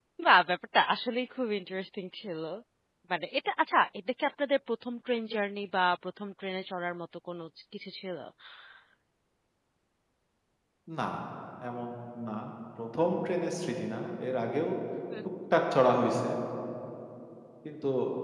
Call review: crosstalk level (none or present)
none